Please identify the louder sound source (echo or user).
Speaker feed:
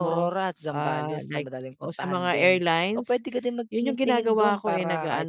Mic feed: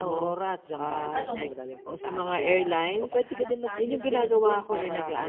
echo